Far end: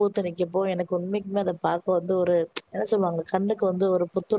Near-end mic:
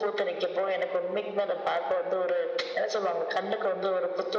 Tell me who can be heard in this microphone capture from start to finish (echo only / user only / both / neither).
echo only